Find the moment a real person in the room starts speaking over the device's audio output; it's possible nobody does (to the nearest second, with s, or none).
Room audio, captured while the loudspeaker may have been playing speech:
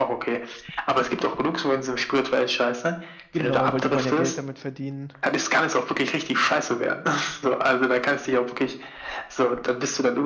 3 s